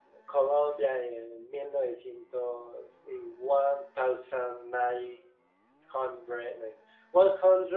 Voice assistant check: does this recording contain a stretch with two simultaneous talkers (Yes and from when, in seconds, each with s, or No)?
No